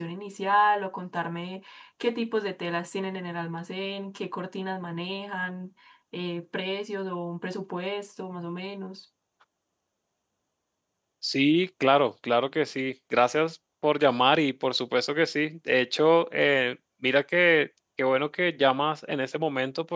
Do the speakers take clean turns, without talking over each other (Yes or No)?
Yes